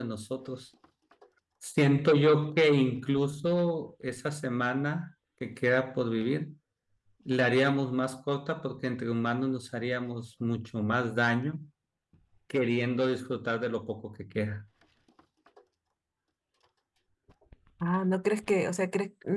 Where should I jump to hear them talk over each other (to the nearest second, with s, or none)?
none